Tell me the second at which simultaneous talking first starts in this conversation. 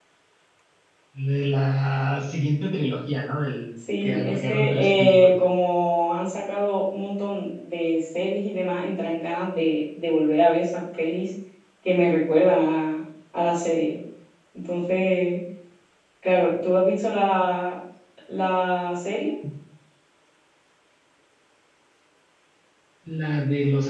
4.0 s

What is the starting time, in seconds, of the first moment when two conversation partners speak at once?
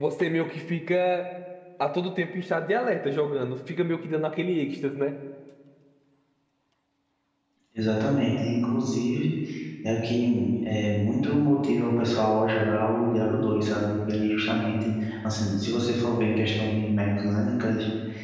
none

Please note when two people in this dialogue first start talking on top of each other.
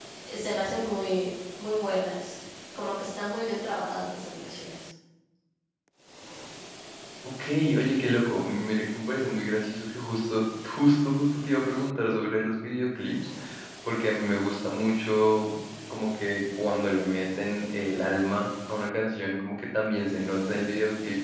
none

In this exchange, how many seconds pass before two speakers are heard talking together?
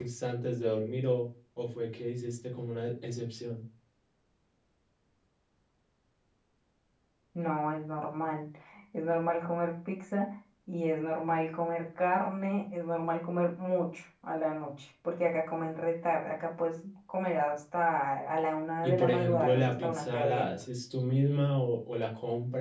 18.8 s

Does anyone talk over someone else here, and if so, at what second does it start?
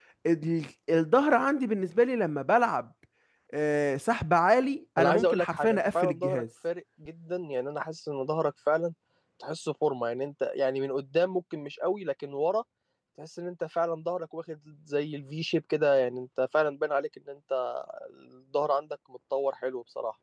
5.0 s

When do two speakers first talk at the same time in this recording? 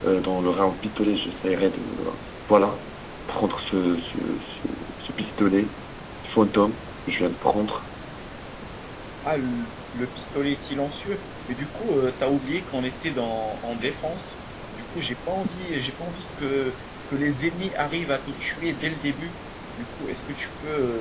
none

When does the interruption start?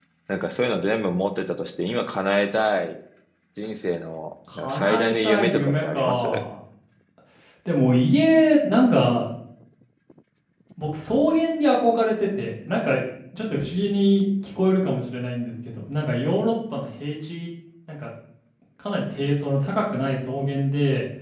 4.5 s

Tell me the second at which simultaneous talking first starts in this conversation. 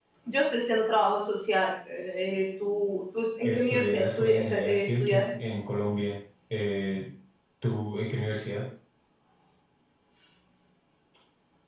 3.4 s

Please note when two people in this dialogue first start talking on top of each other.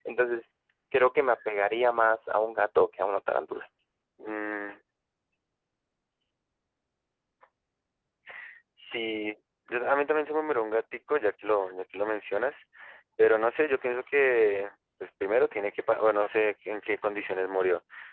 none

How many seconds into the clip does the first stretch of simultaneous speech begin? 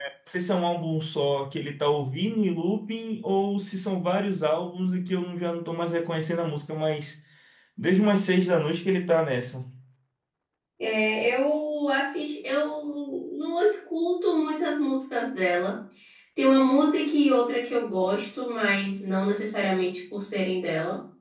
none

